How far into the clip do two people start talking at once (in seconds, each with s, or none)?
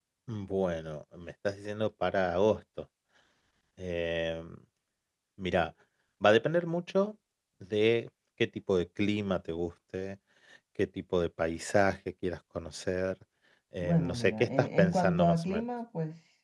13.8 s